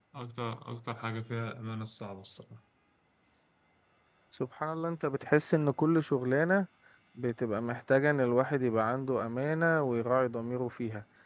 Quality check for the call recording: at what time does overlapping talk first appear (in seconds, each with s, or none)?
none